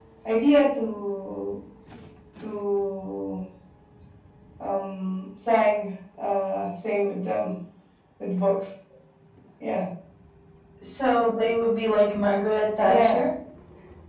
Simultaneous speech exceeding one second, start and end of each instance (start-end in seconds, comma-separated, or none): none